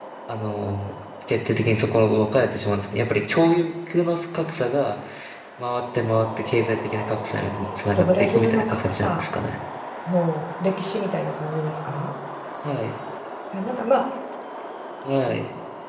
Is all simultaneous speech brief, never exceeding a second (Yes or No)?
No